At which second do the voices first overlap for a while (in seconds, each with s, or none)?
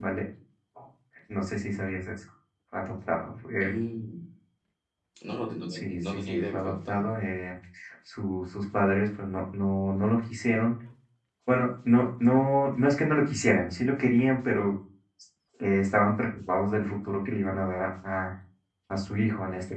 5.7 s